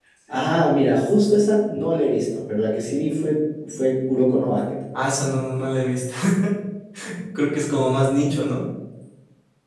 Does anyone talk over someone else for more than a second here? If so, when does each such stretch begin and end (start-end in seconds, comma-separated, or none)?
none